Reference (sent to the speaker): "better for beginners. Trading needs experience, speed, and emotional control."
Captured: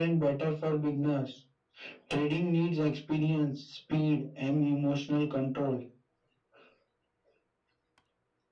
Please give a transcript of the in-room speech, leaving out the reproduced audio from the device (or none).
none